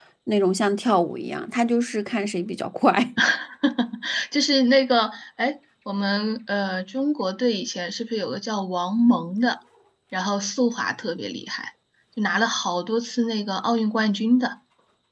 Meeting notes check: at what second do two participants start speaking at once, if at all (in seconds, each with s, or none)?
none